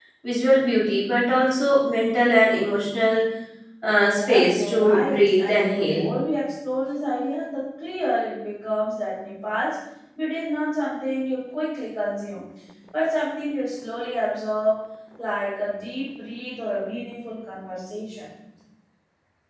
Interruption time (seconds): 4.2 s

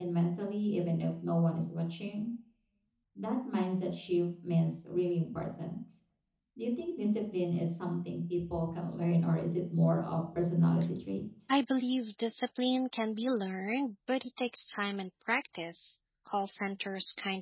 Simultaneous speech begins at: none

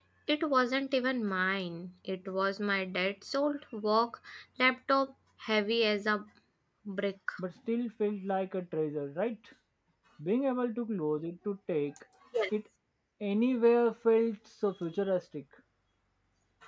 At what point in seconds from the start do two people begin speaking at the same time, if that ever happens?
none

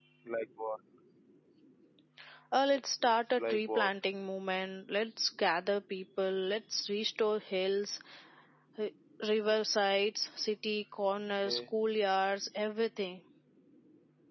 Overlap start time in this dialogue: 2.7 s

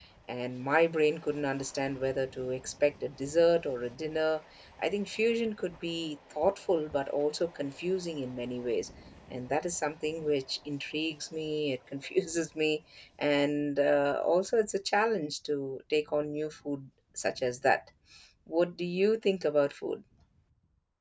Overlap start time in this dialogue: none

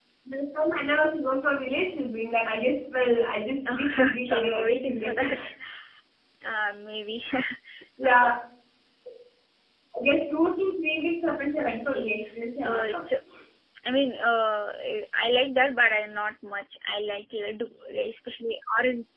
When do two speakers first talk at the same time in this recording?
3.7 s

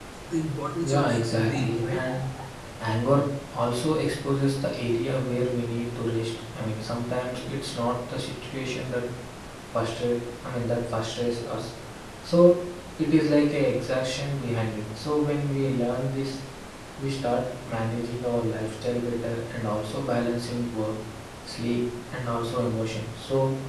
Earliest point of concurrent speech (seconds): 0.8 s

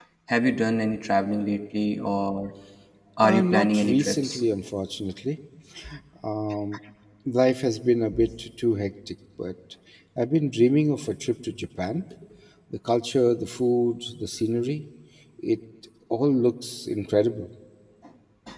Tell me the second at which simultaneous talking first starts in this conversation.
3.2 s

